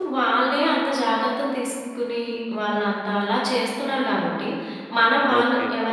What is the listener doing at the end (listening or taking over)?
listening